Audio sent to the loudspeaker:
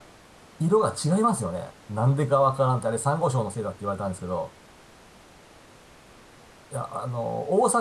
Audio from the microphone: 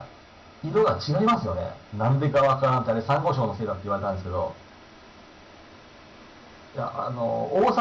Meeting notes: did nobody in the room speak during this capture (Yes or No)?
Yes